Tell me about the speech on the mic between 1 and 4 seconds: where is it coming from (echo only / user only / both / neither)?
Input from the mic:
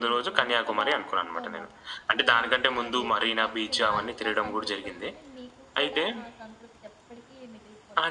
both